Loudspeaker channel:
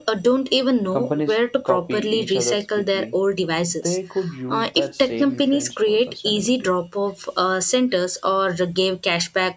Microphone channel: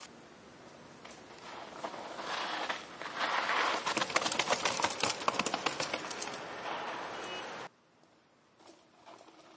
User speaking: No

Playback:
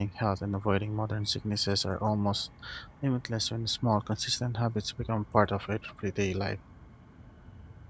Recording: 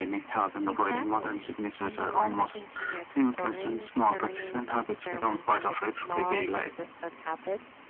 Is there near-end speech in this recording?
Yes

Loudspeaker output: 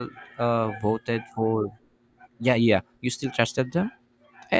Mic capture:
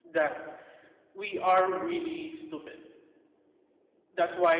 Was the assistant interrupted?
Yes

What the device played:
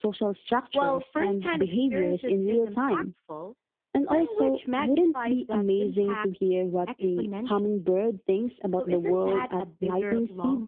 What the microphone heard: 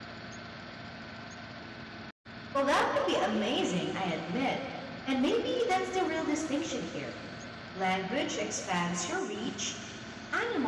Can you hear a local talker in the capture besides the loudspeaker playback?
Yes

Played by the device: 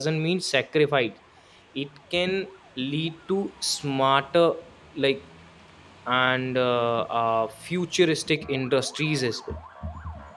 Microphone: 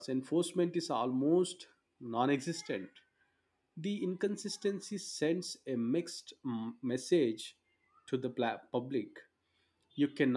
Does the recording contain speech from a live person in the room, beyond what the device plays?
Yes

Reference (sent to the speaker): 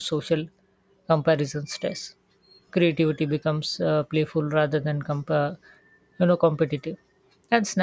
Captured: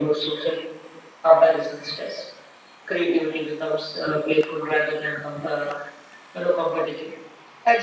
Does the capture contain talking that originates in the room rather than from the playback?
No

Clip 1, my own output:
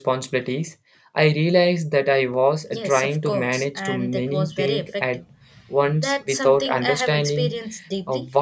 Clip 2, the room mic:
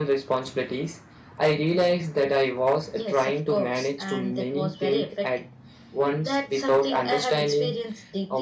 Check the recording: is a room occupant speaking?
No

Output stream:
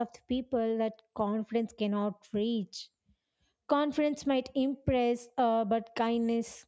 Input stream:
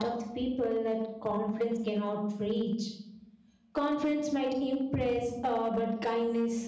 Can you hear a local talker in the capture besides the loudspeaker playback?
No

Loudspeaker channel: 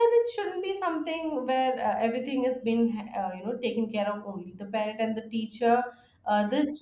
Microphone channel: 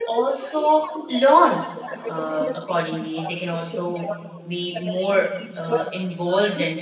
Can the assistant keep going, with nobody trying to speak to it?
No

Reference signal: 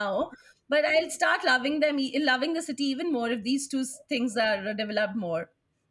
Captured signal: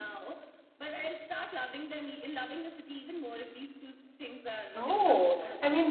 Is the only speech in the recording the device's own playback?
No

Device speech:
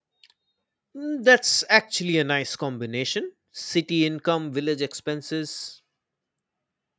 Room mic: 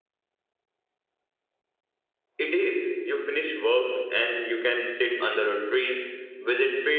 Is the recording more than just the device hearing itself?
Yes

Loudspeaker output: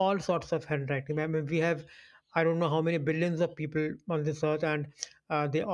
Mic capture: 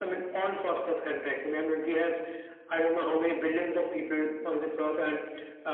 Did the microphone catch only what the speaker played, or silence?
Yes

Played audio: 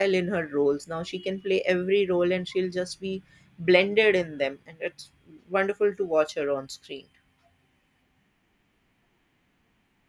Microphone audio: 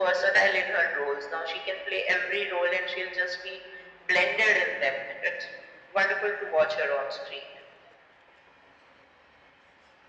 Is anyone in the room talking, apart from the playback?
No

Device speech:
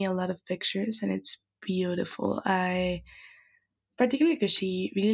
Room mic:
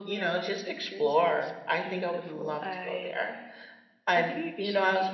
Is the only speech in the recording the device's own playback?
No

